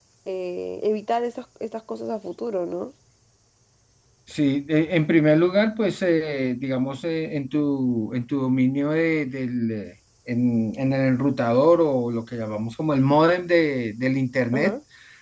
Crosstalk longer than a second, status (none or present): none